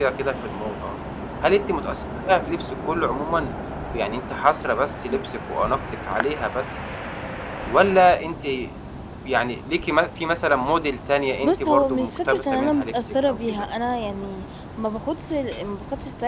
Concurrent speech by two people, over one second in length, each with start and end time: 11.4-13.7

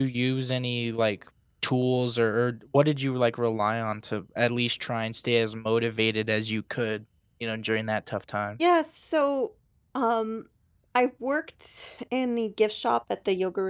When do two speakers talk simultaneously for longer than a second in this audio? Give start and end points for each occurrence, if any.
none

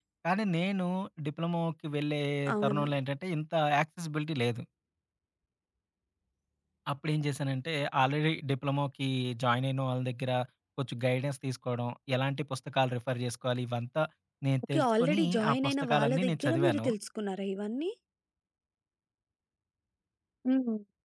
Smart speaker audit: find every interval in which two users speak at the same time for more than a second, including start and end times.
14.7-16.9

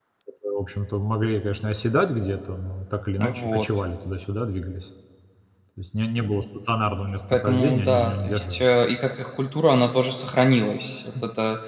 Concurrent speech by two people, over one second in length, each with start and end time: 7.3-8.6

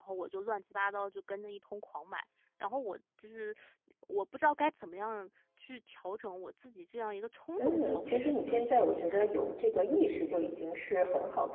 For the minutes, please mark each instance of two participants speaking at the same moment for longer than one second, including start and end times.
7.6-9.3

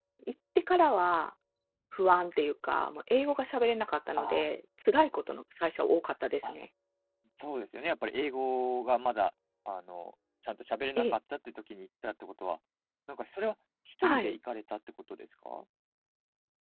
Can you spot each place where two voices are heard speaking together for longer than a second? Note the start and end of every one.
none

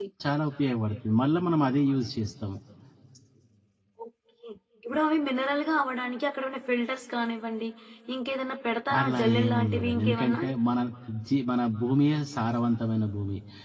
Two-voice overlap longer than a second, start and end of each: 9.0-10.4

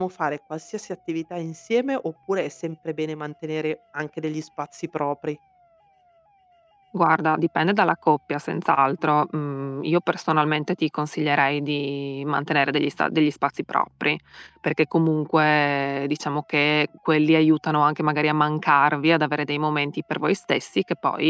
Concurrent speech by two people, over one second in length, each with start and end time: none

